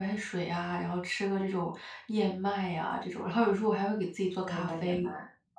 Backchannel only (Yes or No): No